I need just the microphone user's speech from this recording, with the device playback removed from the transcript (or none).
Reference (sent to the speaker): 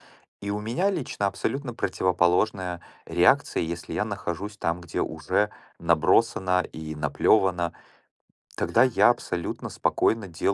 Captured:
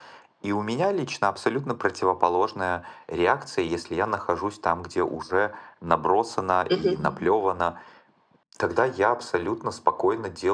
Мгм.